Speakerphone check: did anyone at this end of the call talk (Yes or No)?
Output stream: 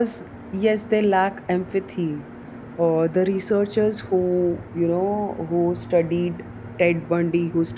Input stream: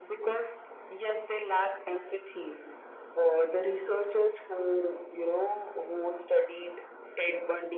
No